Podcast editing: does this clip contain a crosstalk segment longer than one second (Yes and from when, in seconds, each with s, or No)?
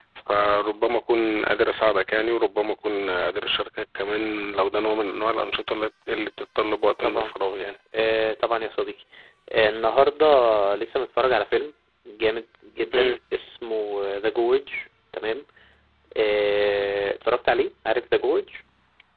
No